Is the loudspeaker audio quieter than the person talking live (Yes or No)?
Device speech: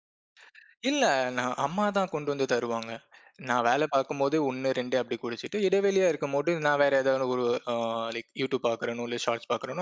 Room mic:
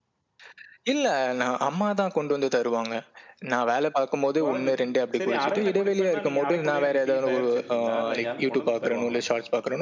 No